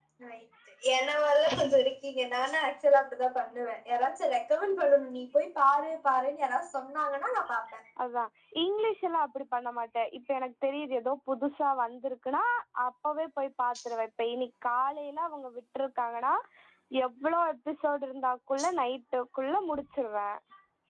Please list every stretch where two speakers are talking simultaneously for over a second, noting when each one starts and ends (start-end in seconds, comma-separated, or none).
none